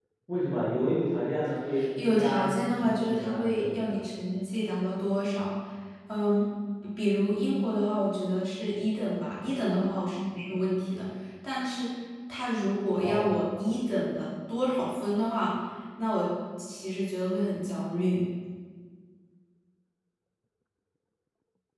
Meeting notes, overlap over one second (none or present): present